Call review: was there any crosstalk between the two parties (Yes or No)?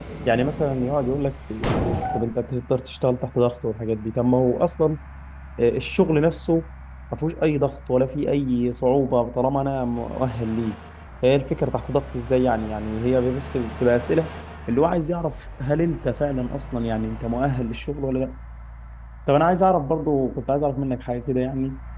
No